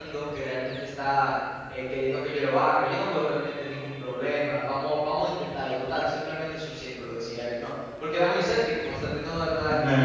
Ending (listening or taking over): taking over